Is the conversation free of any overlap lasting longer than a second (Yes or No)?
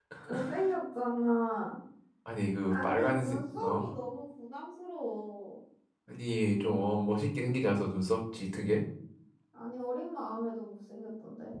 No